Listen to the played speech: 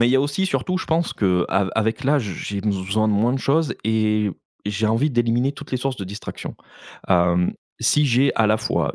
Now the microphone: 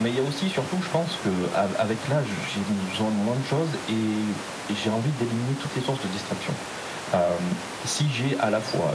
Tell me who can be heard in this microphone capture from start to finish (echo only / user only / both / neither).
echo only